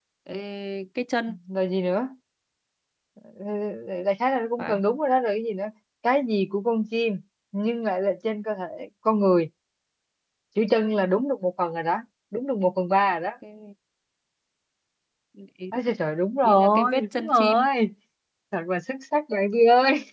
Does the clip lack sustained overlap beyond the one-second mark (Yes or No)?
No